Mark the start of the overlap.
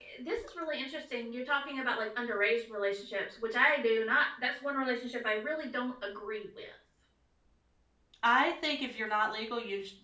none

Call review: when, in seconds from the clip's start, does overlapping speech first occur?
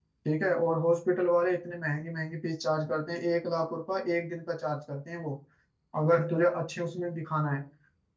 none

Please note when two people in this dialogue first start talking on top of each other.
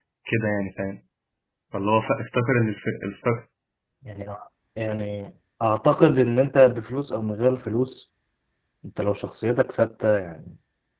none

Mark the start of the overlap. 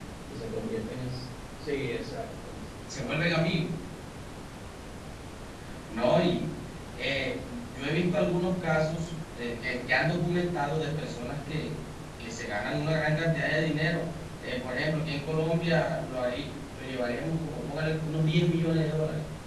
none

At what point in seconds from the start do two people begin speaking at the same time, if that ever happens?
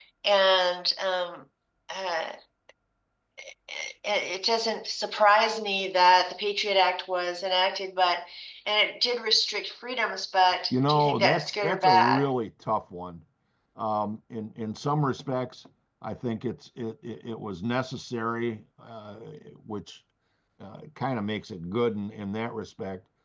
10.7 s

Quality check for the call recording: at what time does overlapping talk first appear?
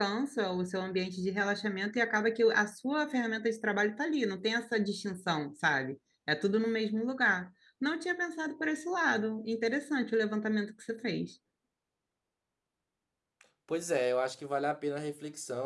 none

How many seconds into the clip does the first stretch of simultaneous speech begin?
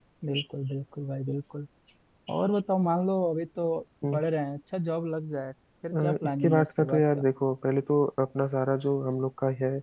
5.9 s

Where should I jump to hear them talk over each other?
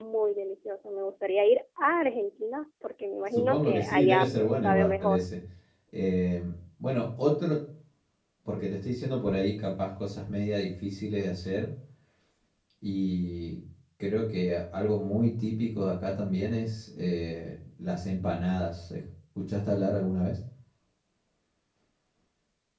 3.4 s

